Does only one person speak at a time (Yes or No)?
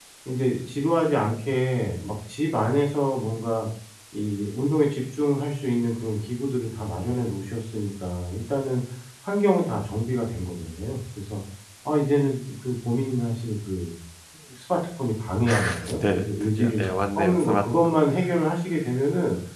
No